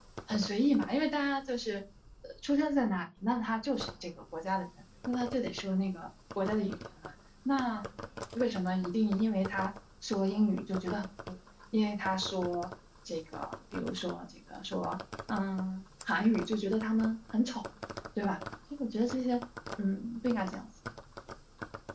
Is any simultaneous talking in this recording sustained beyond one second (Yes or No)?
No